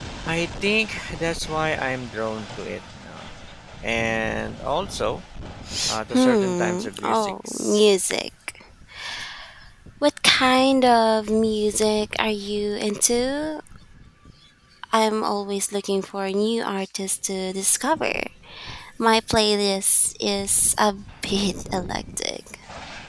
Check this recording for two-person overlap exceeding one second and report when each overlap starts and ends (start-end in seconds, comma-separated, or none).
6.1-7.8